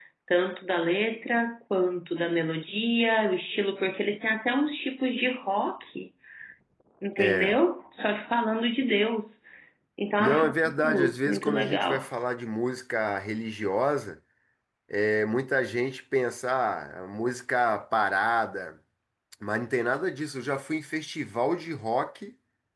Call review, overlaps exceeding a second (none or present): present